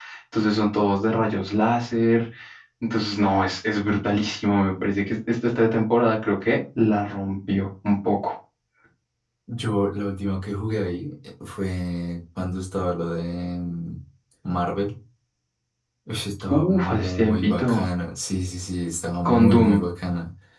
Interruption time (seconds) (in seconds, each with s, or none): 16.5 s